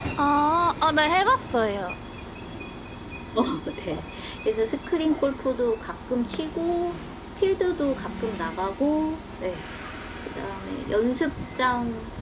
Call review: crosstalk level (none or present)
none